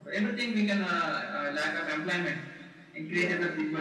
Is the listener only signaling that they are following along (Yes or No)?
Yes